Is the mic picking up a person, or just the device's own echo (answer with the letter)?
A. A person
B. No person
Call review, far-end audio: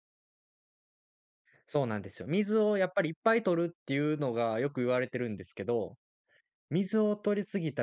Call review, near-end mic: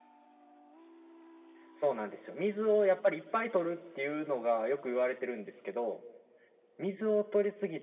B